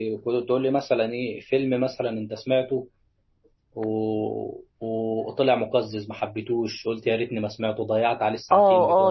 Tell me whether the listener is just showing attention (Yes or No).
No